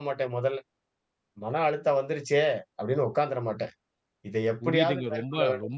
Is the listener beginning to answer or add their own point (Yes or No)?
Yes